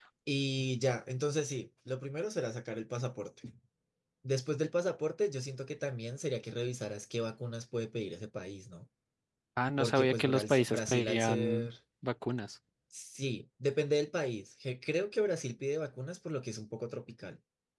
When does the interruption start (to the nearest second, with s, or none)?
10 s